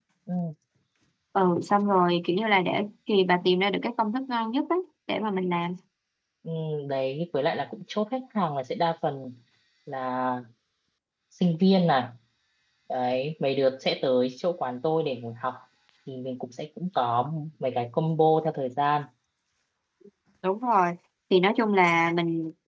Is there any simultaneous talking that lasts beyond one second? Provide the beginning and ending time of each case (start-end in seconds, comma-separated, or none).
none